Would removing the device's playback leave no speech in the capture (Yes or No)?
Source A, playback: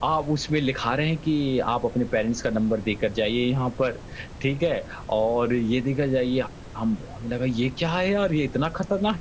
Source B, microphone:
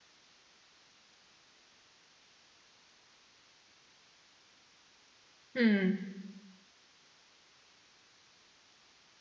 No